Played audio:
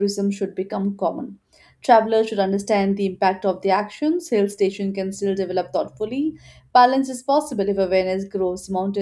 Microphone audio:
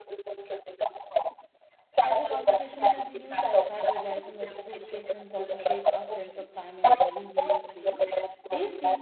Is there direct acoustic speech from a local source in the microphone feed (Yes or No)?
Yes